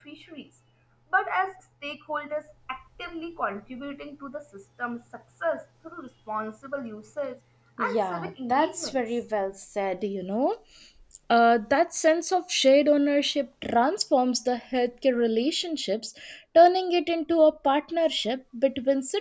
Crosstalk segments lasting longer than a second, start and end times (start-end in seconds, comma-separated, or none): 7.8-9.0